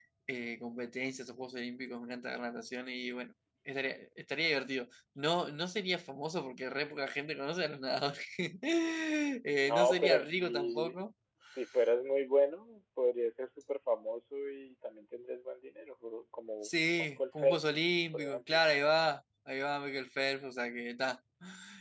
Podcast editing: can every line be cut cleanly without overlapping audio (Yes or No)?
No